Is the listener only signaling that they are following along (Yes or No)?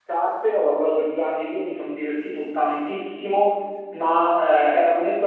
Yes